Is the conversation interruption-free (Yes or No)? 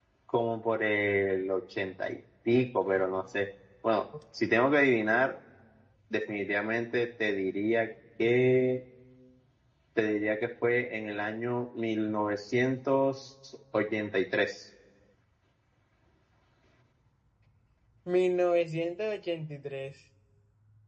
Yes